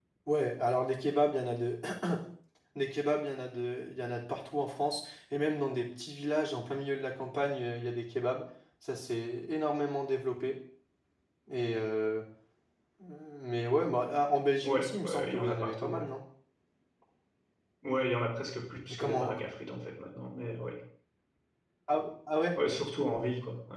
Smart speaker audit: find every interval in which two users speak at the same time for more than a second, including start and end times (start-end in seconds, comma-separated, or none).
14.6-16.0